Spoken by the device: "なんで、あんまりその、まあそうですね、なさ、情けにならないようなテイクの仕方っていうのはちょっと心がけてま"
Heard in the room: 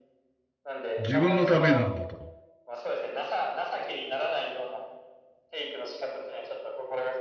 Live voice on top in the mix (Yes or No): Yes